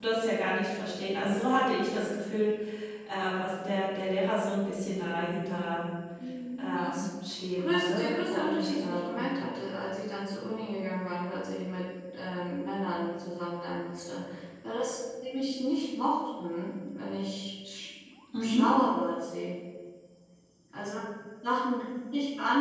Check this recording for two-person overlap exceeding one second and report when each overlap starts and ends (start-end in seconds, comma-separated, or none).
7.6-9.2